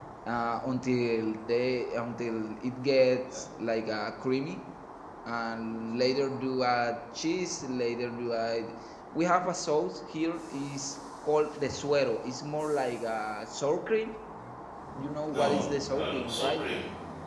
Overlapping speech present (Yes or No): Yes